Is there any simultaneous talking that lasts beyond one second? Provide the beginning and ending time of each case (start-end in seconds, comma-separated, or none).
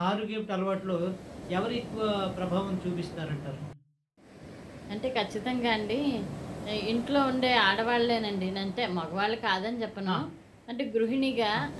none